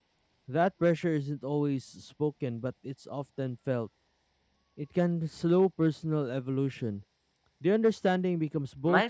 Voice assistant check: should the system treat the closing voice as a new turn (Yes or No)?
Yes